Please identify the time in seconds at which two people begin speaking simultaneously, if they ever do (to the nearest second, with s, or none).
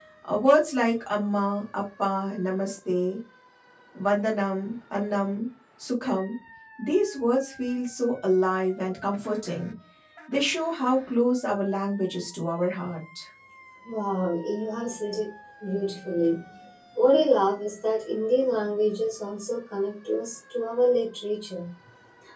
none